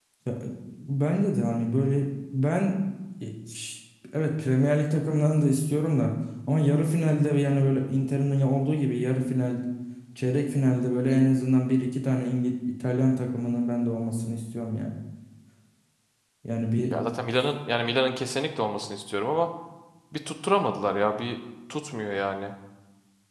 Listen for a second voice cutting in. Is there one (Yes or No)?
No